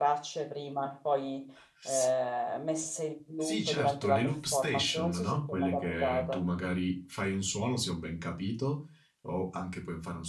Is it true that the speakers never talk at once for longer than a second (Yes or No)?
No